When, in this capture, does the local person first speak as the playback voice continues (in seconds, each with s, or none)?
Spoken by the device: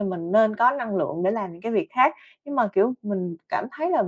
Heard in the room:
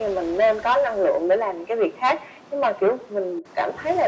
none